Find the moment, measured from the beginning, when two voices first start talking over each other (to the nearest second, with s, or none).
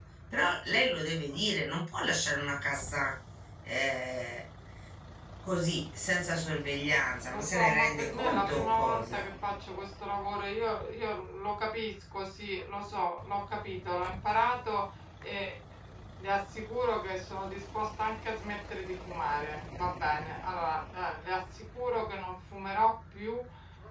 7 s